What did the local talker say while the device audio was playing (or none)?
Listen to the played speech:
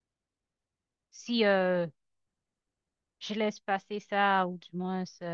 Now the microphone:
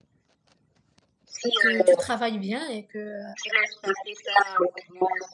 que tu travailles bien et que euh,